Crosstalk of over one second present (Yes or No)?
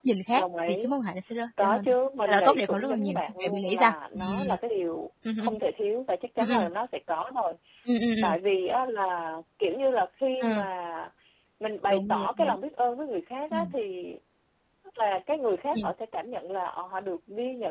Yes